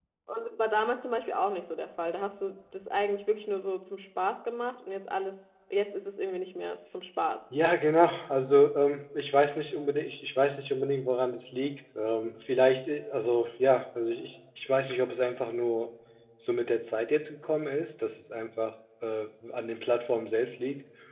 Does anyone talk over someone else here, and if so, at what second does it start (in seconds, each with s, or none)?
none